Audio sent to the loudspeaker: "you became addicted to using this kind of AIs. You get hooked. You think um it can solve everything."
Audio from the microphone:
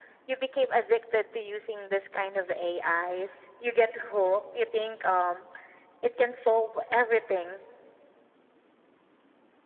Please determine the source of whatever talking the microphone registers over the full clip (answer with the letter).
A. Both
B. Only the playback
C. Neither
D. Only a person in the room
B